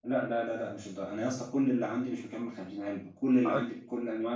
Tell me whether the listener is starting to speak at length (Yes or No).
No